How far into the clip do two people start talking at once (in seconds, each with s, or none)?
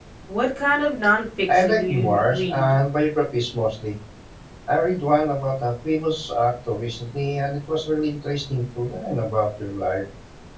1.5 s